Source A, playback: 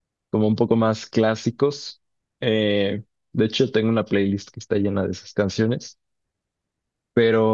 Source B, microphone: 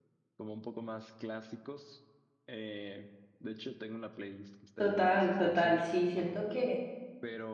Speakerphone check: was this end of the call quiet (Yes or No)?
No